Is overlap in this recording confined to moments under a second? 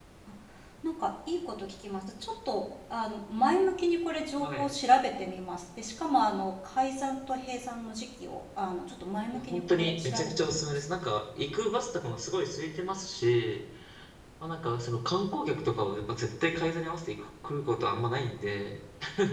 No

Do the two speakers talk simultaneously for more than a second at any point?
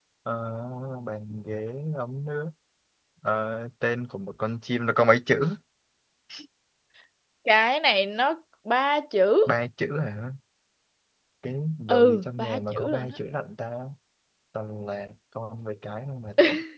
Yes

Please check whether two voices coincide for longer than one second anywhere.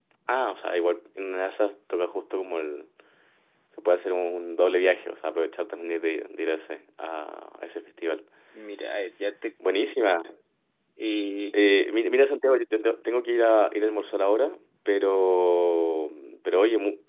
No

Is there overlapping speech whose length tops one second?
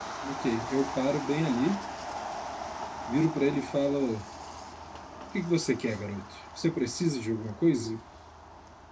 No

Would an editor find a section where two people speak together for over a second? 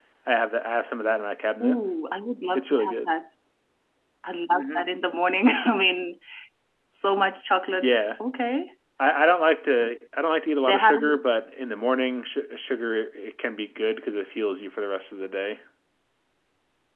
No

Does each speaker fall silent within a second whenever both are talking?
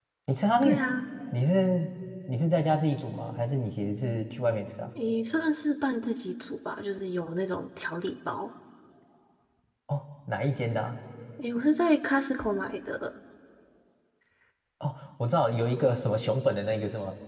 Yes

